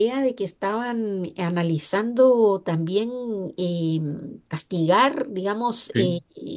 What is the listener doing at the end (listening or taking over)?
listening